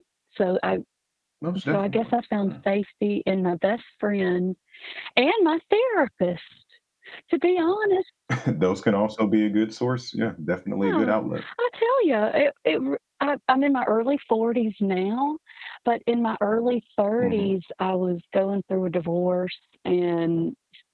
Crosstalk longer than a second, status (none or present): none